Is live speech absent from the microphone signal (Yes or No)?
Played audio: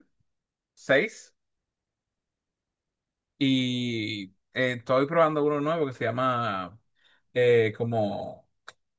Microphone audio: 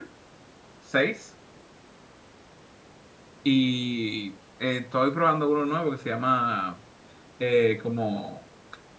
Yes